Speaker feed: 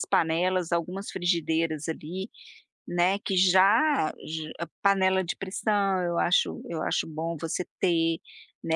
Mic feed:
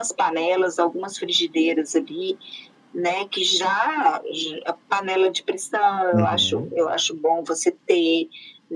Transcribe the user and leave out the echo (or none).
Uhum.